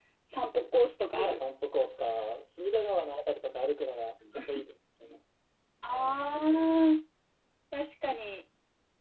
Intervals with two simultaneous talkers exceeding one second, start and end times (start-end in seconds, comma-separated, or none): none